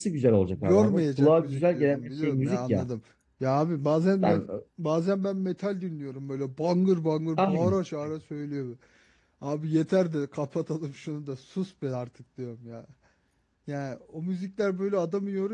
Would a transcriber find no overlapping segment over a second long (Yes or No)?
No